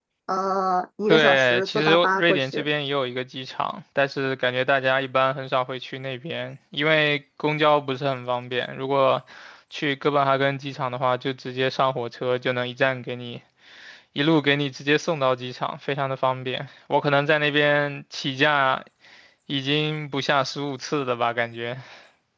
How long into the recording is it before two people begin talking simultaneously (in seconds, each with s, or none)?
1.1 s